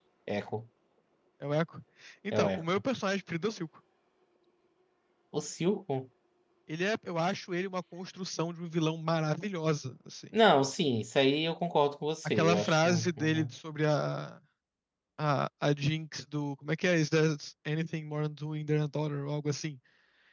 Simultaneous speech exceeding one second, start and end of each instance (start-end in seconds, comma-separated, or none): 12.2-13.5